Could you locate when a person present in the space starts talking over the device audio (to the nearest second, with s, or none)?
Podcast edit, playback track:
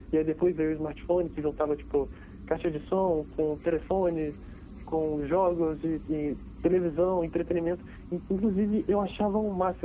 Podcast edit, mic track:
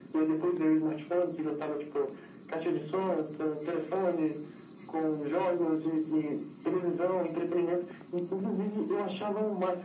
none